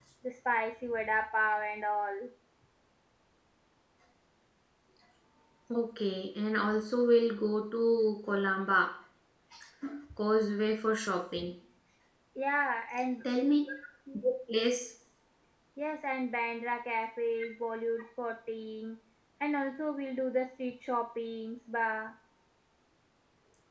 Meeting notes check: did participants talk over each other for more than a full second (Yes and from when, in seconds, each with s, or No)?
No